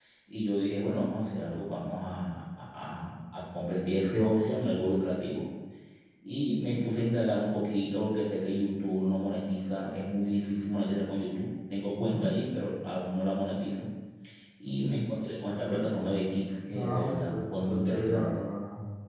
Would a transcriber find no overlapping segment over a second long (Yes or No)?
No